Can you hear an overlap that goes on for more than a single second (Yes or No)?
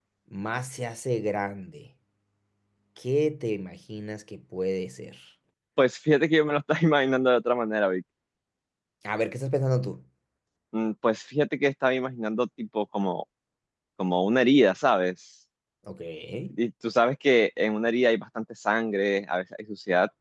No